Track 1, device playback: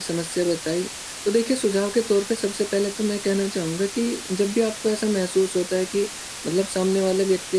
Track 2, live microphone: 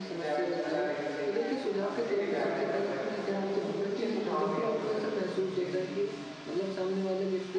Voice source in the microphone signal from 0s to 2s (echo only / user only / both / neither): both